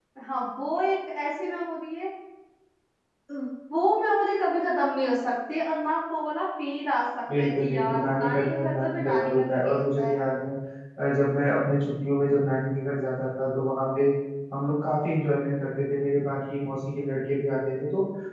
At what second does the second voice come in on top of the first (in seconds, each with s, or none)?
7.3 s